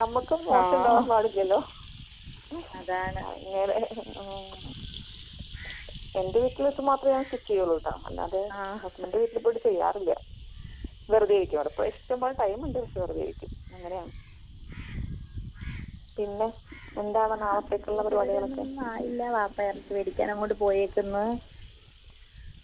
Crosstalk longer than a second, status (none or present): present